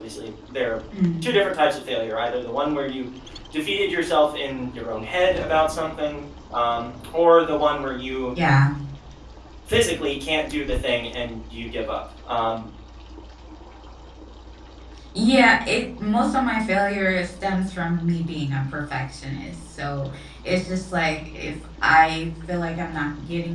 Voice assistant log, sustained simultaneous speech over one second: none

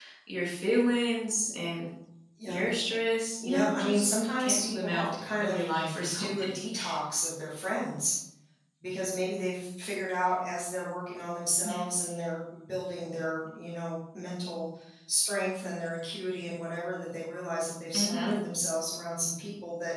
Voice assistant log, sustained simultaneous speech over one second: present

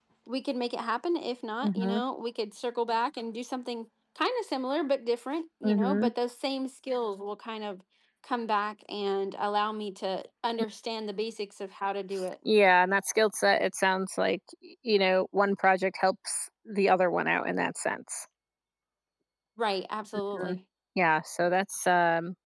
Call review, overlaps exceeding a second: none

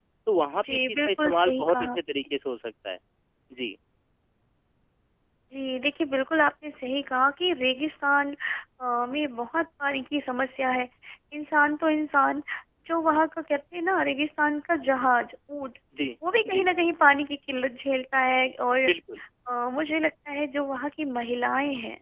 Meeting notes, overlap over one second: present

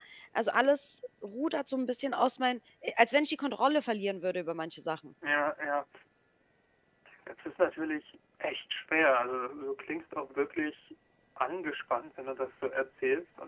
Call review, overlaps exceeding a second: none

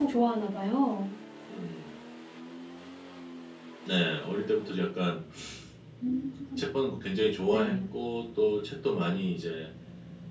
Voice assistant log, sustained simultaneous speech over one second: none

